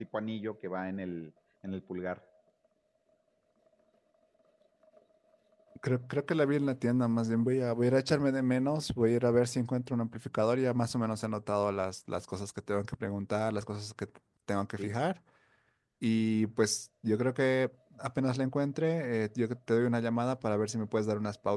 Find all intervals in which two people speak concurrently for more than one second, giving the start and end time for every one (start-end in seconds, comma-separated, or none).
none